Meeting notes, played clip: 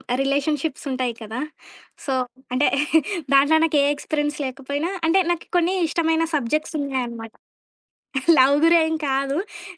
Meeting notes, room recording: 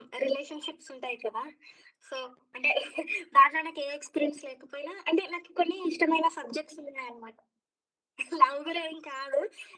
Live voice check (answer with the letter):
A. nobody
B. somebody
A